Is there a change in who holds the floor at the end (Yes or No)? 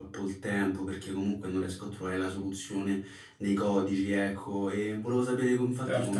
No